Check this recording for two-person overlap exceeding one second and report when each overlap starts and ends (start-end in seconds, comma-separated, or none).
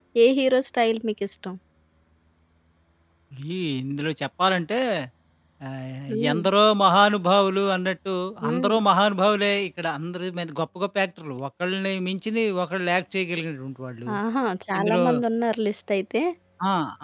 none